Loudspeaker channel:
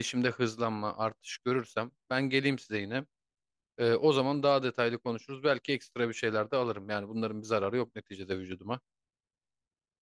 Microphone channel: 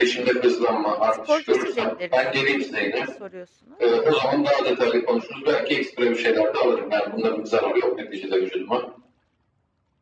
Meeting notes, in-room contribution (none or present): present